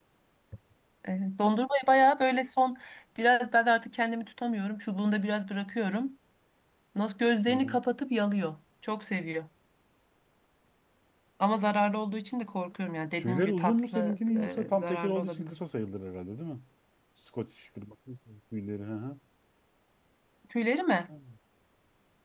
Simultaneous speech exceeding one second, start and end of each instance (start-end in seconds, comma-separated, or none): 13.2-15.6